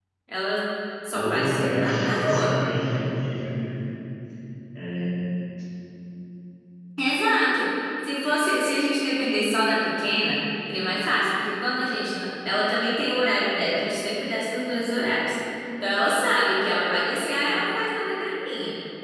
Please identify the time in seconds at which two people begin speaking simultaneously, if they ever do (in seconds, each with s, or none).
1.1 s